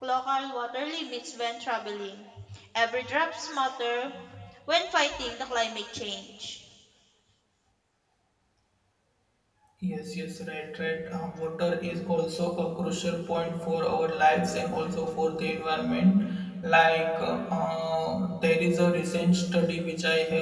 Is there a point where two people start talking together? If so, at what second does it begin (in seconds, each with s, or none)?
none